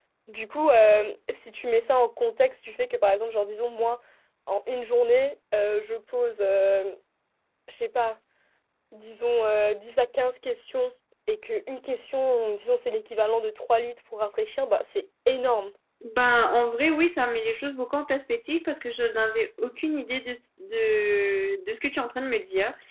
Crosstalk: none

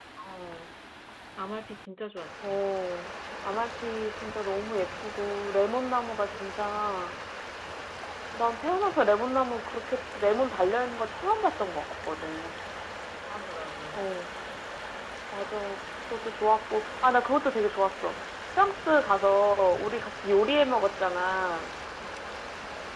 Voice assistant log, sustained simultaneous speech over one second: none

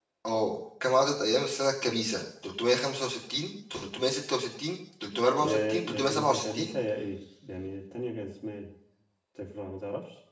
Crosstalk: present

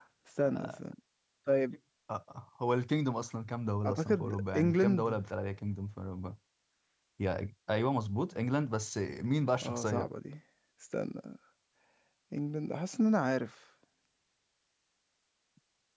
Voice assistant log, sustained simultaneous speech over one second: present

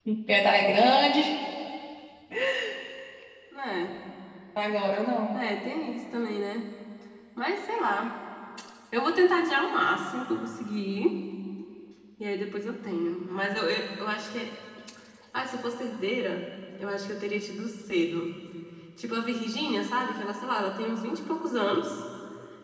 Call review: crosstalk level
none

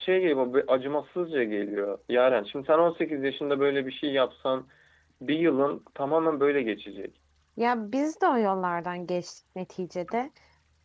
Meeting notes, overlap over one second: none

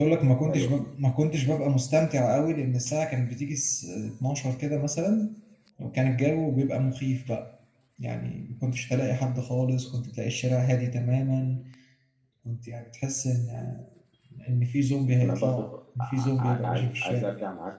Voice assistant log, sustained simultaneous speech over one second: present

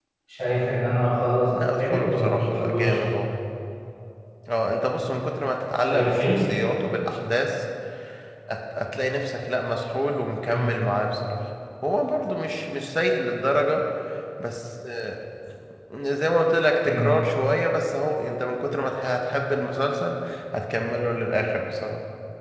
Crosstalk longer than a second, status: present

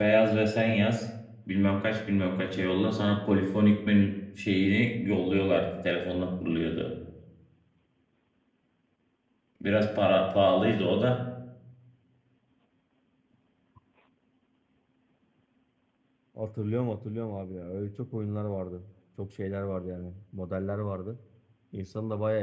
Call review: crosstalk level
none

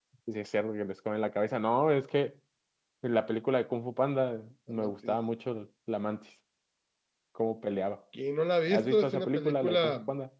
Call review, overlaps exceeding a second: present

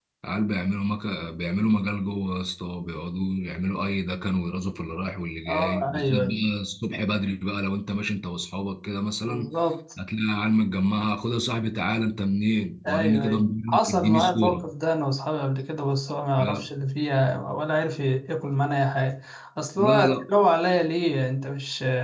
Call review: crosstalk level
present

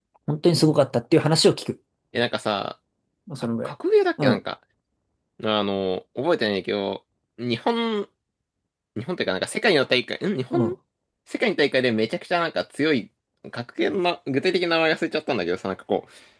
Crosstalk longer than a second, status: none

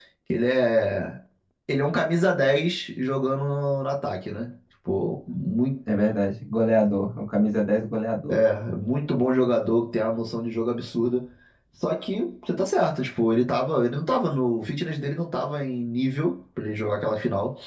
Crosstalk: none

